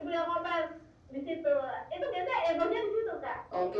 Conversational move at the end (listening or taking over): taking over